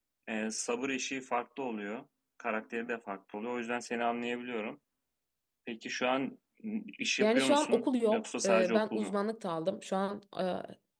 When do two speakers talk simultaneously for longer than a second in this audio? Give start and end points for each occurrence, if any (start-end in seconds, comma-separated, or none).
7.2-9.1